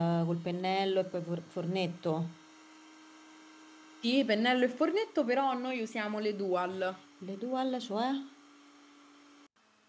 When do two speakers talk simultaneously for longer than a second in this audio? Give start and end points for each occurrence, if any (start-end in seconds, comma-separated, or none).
none